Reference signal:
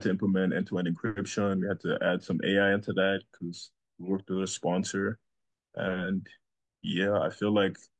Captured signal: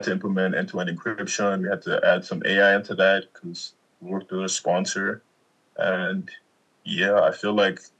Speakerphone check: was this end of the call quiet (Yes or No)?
Yes